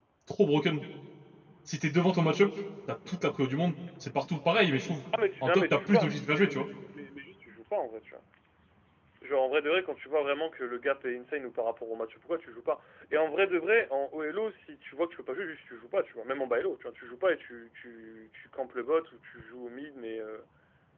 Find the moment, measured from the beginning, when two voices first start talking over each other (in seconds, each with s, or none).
5.4 s